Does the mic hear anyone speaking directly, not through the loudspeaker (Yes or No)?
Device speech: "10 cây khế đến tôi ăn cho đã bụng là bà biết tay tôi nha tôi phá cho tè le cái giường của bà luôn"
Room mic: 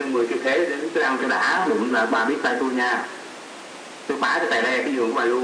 No